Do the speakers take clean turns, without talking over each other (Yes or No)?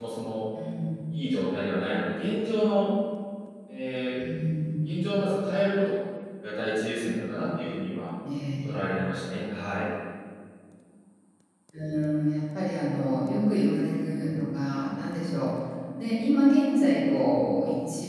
Yes